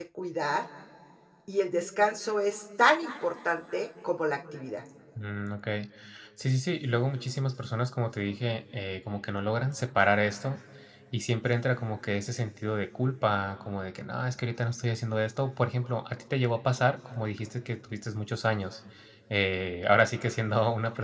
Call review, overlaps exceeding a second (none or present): none